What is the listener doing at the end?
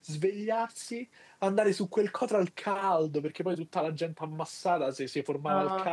taking over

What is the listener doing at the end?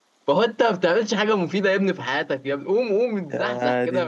listening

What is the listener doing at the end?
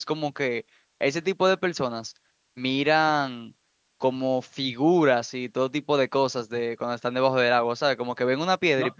taking over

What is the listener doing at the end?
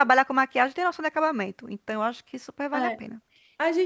taking over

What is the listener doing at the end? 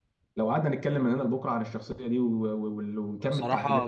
taking over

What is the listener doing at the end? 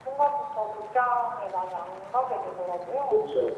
taking over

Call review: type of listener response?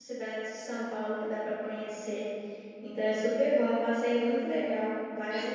taking over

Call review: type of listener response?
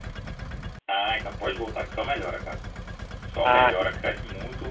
listening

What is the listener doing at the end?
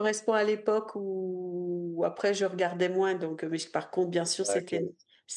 listening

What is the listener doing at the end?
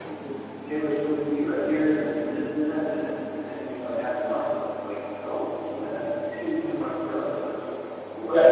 taking over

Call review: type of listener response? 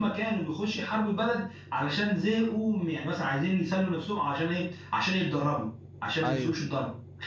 listening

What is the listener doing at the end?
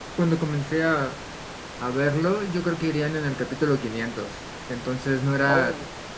listening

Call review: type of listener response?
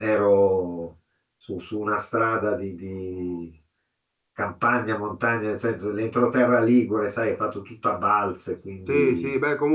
taking over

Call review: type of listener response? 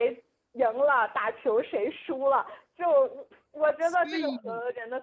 listening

